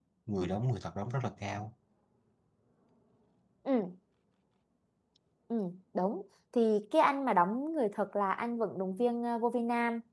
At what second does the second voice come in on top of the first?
none

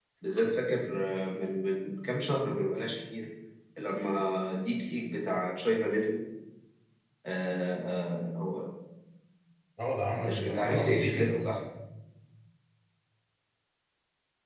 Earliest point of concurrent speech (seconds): 10 s

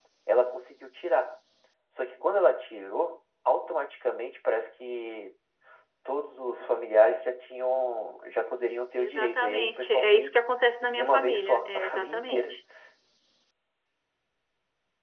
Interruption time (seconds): 9 s

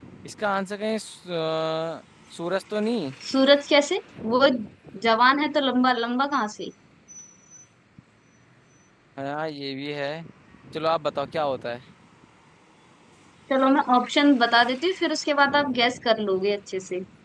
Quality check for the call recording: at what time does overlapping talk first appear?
none

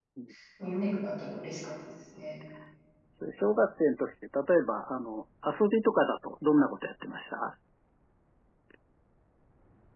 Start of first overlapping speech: none

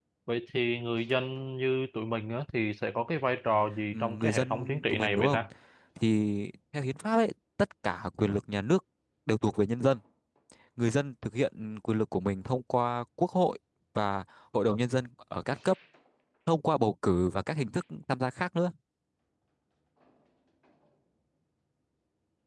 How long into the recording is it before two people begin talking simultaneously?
4 s

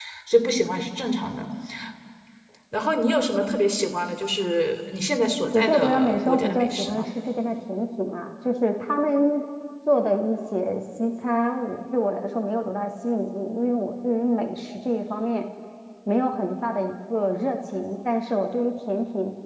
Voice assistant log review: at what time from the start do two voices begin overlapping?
6 s

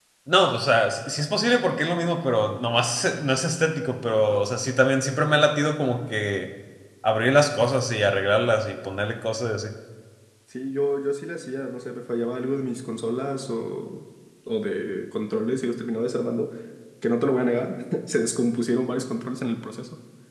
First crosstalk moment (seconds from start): none

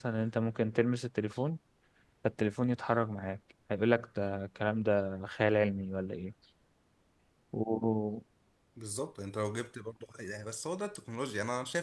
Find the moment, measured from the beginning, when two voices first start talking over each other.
none

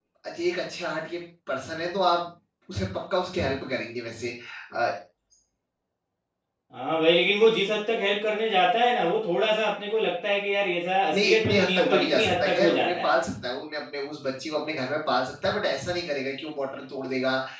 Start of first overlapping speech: 11 s

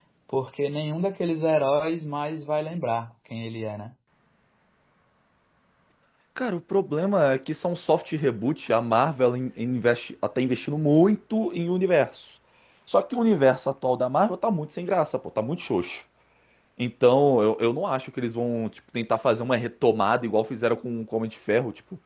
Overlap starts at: none

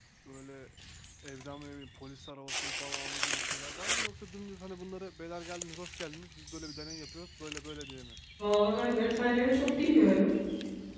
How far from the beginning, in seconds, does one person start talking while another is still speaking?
none

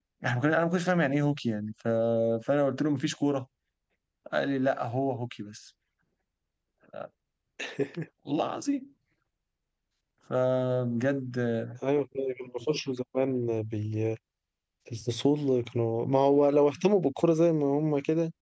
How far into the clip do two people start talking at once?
none

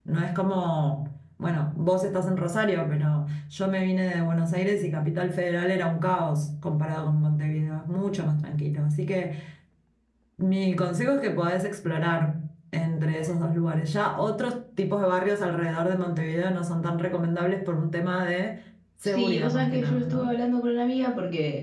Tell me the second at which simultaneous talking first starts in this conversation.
19 s

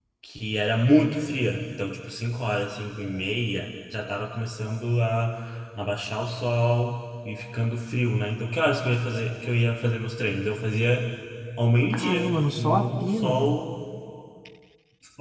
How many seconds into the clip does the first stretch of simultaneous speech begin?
12 s

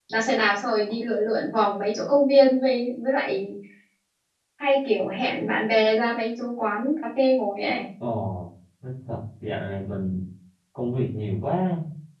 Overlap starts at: none

